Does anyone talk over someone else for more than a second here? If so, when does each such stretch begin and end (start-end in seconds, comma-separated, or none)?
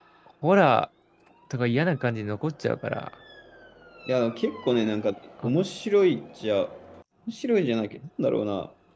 none